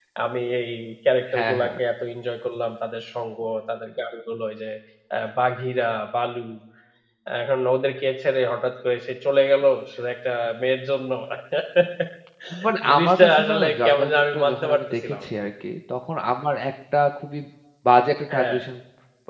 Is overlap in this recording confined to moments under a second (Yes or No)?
No